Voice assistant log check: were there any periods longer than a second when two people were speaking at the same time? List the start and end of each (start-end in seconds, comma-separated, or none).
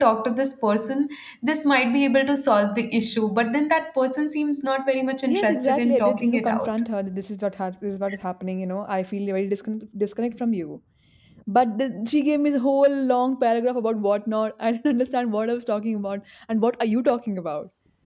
5.3-6.7